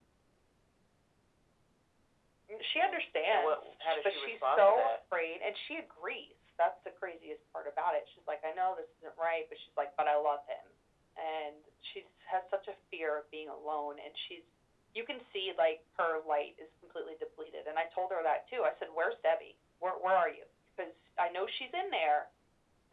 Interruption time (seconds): 2.8 s

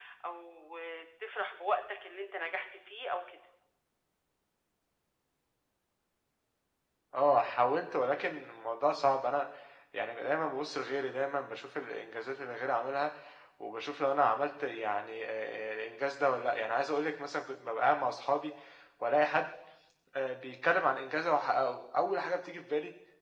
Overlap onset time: none

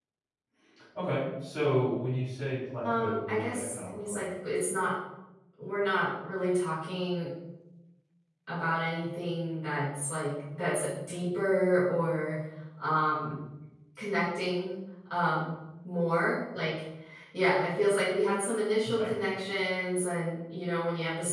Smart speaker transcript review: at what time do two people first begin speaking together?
2.8 s

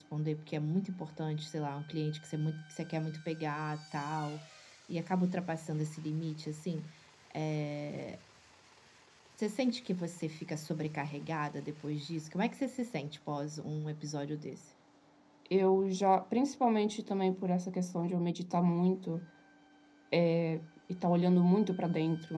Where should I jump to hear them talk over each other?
none

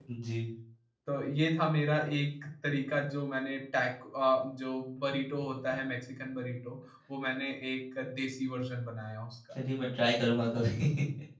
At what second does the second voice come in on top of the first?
none

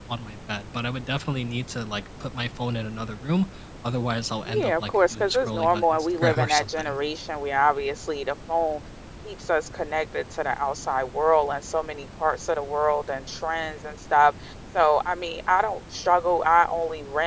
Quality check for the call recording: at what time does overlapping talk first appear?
4.5 s

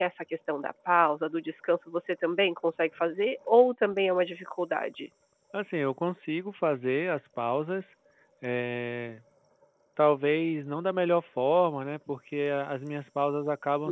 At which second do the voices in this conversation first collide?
none

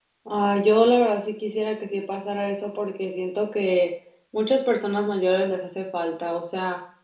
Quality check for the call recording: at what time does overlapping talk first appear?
none

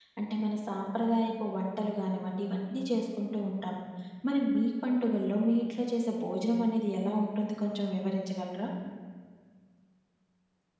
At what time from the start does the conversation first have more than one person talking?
none

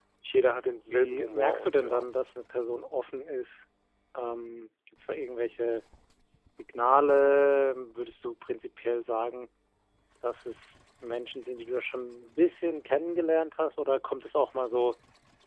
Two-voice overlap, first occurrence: 0.9 s

